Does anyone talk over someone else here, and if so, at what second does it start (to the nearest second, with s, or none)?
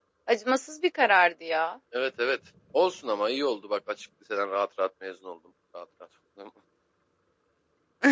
none